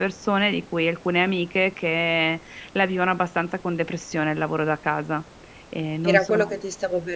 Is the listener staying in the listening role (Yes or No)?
No